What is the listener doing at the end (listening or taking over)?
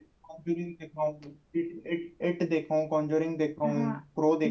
taking over